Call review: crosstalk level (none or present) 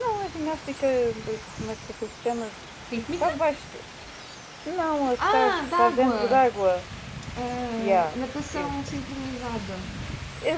present